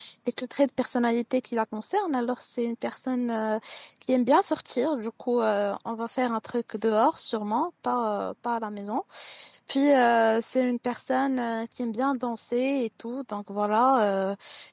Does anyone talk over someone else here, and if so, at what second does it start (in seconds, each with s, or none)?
none